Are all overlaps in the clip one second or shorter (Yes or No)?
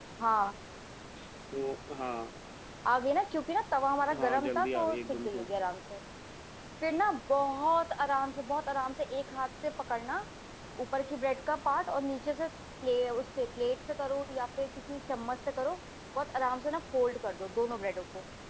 No